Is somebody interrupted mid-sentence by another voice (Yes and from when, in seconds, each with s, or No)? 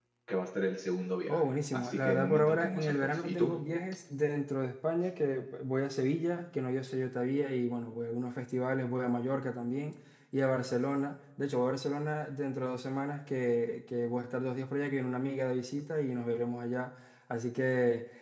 Yes, from 1.3 s